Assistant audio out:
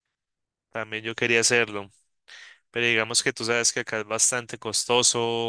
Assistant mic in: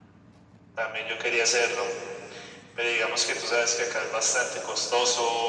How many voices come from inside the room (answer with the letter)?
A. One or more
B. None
B